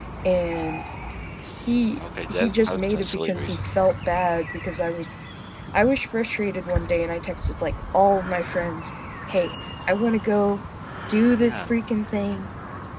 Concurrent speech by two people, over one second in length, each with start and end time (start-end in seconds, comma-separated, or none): 2.3-3.7